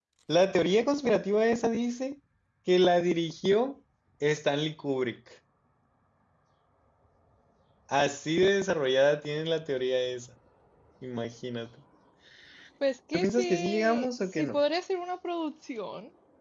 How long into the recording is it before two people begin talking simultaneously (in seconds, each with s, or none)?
13.1 s